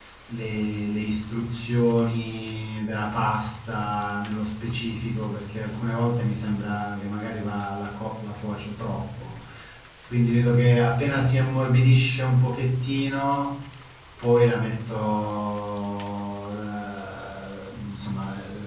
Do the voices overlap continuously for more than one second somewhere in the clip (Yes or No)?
No